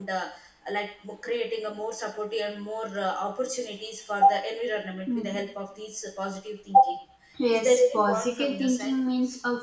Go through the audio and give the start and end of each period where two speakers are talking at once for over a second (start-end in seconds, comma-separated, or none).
7.5-8.9